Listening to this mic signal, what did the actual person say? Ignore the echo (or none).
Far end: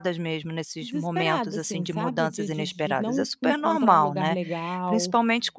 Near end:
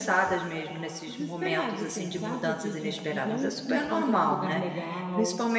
none